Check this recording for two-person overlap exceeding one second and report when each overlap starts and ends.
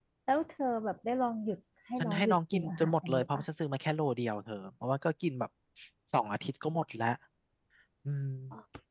2.0-3.5

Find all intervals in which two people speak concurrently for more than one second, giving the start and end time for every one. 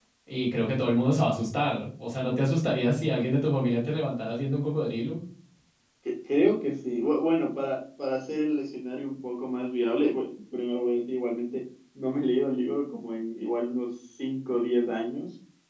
none

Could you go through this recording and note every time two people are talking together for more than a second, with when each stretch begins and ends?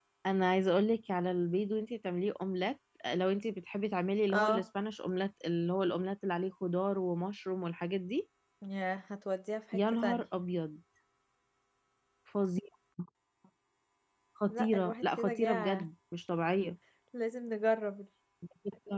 14.5-15.9

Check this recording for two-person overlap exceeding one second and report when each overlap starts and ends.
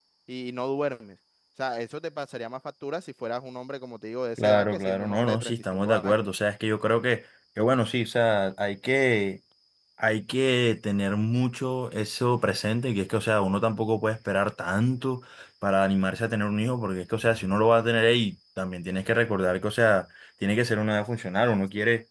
4.4-6.2

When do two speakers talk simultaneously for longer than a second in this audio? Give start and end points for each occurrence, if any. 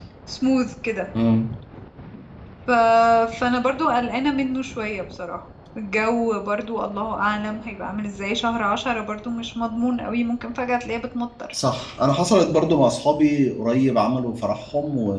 none

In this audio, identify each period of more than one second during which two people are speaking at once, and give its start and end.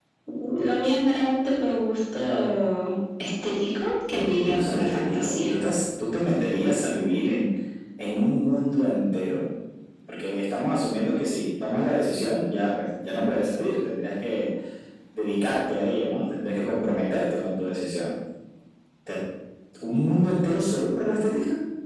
4.1-5.5

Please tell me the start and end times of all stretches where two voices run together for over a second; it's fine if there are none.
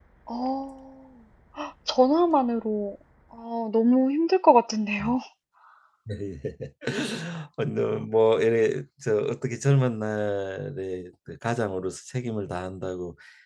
none

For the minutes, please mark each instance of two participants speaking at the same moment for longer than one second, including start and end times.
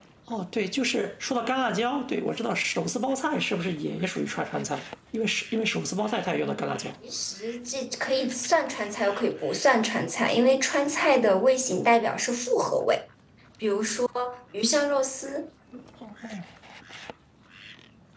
none

